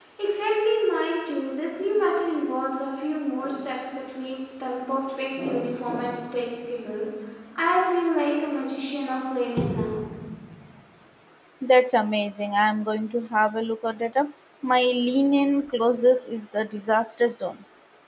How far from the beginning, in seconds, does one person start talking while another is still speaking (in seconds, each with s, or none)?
none